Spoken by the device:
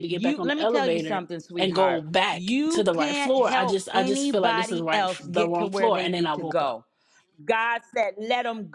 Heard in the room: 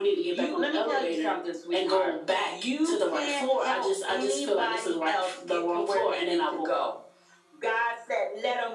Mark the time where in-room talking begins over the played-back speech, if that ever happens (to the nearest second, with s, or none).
none